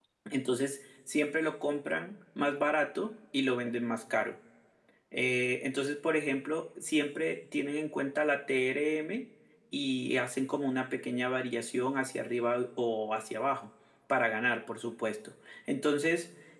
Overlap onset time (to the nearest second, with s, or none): none